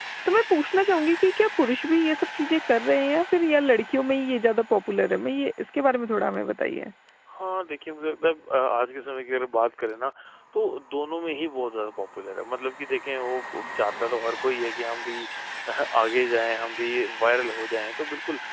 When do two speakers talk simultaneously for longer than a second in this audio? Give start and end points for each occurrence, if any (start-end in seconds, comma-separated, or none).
none